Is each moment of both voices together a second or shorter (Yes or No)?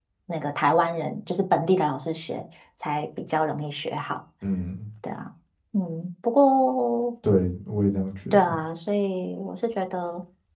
Yes